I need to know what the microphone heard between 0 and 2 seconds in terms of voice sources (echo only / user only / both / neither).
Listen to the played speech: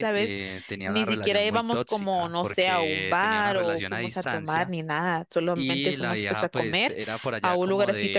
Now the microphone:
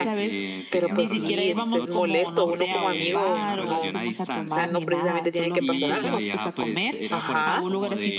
both